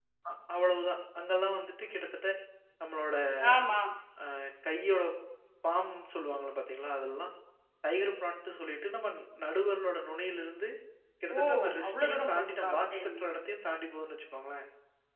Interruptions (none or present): present